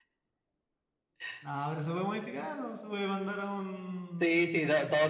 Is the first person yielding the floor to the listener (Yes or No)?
Yes